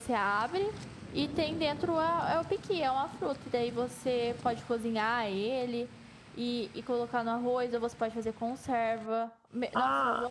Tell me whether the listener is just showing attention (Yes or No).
No